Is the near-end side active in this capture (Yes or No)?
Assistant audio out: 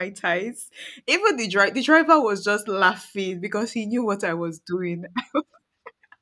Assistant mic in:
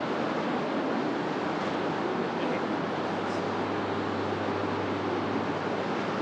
No